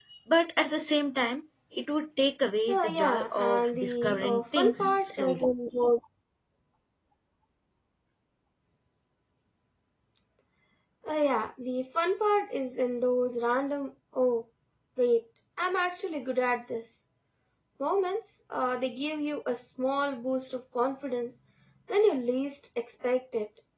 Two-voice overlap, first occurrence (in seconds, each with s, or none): 2.7 s